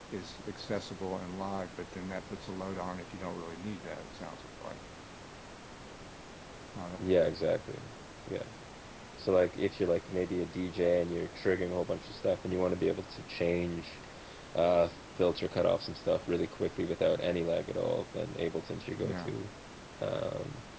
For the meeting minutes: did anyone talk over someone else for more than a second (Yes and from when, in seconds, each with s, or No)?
No